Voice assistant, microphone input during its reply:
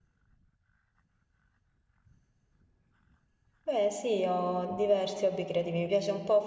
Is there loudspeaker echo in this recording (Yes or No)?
No